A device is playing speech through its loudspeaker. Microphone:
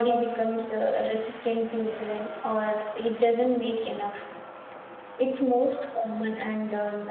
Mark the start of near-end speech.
none

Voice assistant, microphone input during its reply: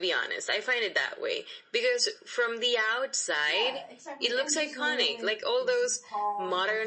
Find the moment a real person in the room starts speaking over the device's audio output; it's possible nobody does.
3.4 s

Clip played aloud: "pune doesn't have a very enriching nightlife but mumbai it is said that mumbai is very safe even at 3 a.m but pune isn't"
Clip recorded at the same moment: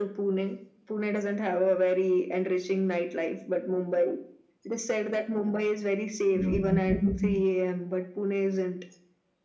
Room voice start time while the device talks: 6.3 s

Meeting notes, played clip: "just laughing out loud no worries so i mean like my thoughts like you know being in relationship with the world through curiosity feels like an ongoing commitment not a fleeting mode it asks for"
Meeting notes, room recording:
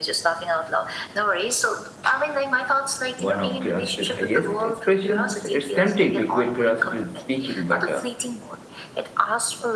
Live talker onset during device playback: 3.2 s

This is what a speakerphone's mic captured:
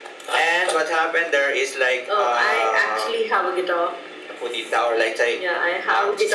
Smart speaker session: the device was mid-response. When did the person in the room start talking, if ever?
none

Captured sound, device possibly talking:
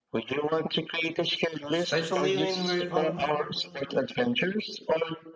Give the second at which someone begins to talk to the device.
1.7 s

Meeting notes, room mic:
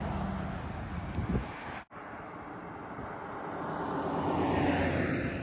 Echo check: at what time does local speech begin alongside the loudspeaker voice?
none

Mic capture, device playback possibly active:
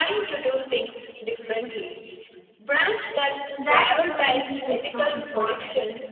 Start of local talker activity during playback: 3.6 s

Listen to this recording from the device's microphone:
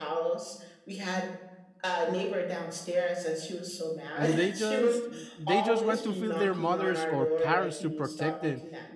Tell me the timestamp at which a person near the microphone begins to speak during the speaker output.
4.1 s

